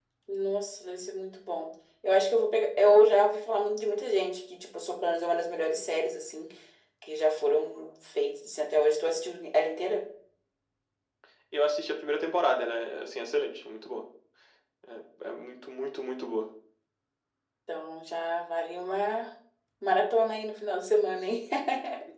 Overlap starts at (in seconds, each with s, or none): none